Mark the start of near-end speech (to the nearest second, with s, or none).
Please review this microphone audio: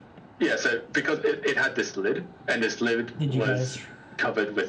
3 s